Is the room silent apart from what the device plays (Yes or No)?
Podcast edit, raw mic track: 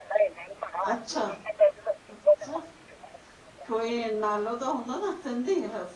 No